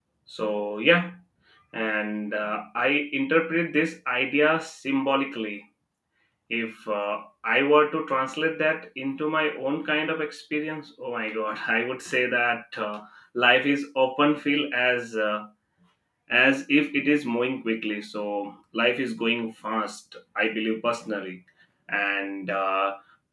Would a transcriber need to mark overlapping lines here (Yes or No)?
No